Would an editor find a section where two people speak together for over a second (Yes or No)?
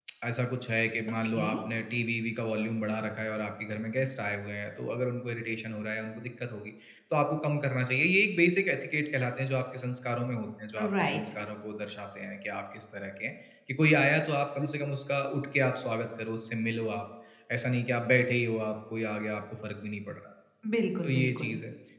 No